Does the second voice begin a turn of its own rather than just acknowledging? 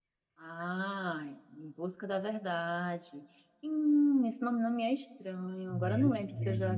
No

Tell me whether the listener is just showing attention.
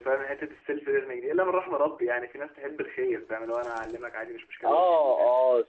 No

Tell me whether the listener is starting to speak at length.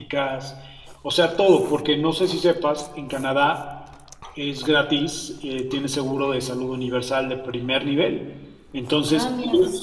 No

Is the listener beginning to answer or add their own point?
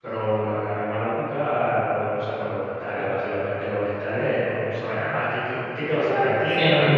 Yes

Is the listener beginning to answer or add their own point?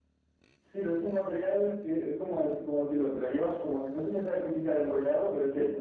No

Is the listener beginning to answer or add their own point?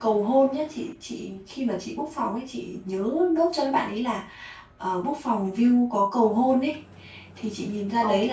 No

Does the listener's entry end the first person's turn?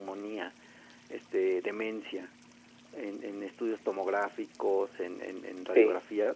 No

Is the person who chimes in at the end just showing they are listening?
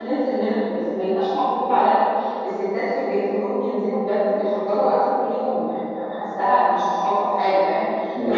Yes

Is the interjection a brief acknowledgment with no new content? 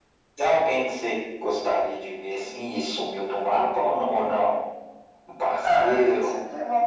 No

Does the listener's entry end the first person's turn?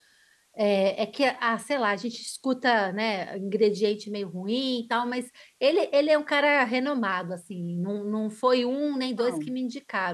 No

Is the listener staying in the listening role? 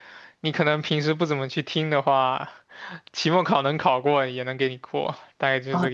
No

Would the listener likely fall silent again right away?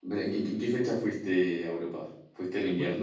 No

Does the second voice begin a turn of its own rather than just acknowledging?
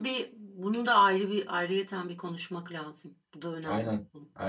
Yes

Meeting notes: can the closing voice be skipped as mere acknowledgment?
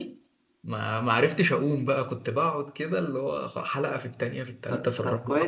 No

